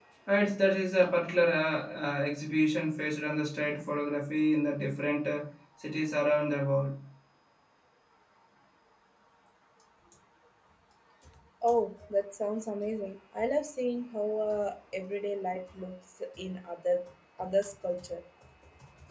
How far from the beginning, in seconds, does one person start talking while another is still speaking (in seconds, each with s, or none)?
none